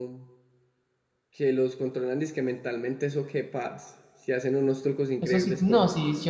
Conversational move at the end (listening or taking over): taking over